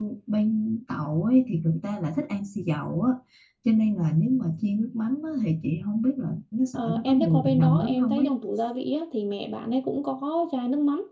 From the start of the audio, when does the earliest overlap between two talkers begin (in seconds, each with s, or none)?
6.7 s